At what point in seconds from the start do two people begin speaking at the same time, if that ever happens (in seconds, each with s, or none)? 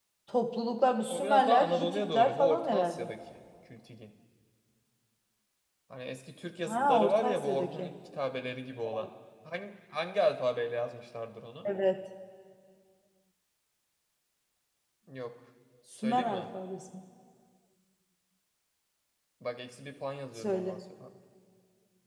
1.1 s